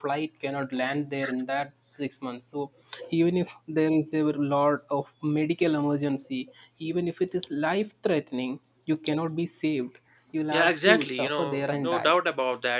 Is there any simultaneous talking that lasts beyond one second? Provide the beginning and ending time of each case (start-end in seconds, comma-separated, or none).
10.5-12.1